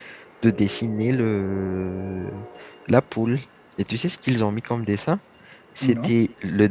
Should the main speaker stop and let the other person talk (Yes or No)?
No